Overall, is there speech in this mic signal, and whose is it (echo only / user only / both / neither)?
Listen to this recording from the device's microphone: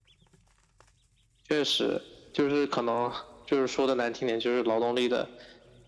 echo only